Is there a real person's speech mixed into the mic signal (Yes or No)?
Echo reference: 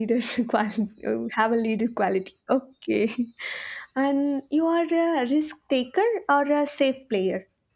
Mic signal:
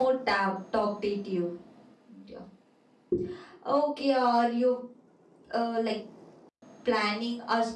Yes